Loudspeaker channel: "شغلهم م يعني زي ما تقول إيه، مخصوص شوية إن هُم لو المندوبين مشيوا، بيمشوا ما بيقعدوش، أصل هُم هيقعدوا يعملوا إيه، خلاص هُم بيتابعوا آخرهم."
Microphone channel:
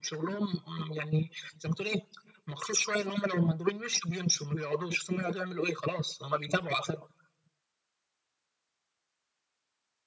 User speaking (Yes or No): No